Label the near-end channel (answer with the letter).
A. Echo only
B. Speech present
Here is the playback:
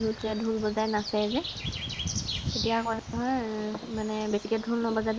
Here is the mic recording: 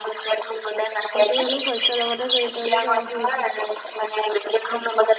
B